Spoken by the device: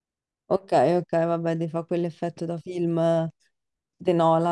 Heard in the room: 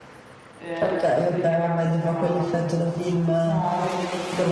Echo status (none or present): present